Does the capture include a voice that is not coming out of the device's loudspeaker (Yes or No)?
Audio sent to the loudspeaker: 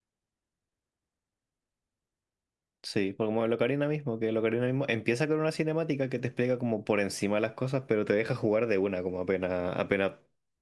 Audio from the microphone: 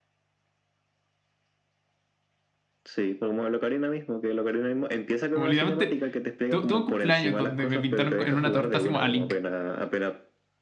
Yes